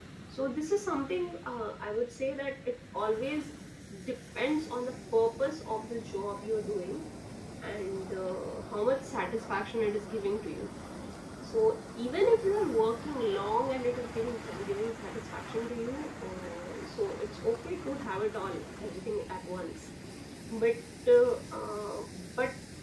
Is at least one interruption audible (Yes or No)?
No